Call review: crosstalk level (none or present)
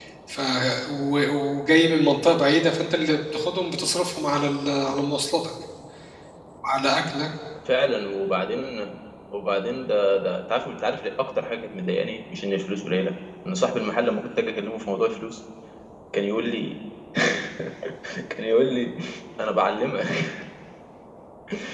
none